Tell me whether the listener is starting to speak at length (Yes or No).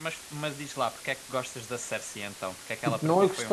Yes